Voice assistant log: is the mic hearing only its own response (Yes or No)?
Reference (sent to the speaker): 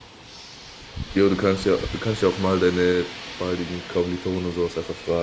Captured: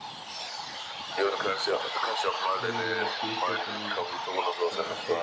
No